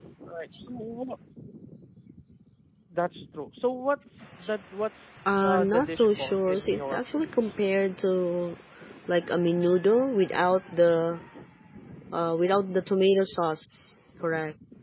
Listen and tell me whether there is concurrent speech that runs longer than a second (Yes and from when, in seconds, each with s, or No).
Yes, from 5.3 s